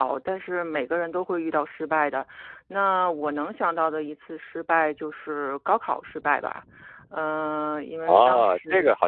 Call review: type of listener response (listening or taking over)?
taking over